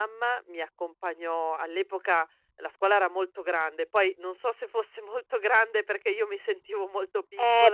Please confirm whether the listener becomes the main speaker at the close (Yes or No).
Yes